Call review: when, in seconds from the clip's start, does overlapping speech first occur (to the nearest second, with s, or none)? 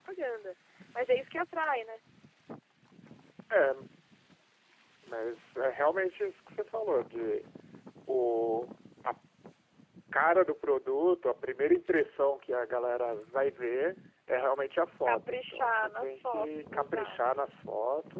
15 s